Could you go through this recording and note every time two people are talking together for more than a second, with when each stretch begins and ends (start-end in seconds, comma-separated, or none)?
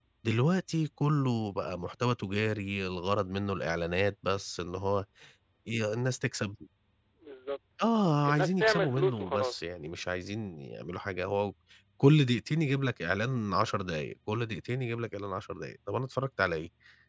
8.3-9.5